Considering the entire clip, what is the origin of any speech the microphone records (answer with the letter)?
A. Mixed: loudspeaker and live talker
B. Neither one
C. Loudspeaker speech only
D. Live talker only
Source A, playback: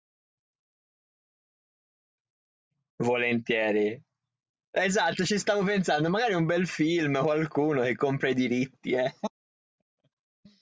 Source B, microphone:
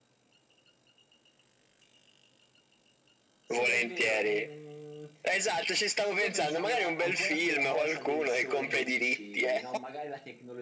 A